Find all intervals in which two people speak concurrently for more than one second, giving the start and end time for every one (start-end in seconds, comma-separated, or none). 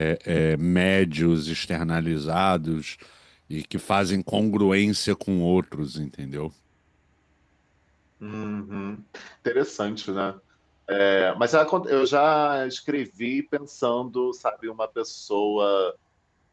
none